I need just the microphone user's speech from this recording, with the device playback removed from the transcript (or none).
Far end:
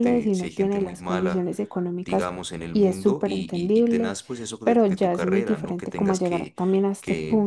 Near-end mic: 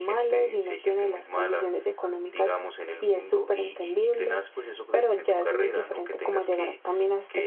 none